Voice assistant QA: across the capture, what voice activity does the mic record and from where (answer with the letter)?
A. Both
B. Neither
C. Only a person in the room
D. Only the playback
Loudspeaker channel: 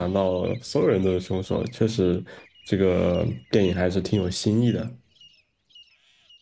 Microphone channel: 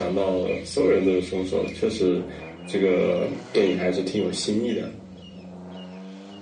D